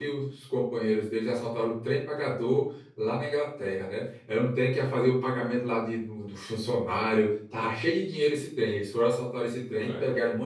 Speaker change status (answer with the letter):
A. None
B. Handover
A